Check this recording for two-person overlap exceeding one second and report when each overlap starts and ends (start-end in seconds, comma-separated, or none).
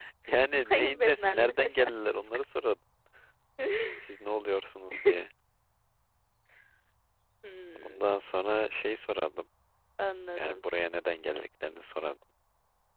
0.5-2.4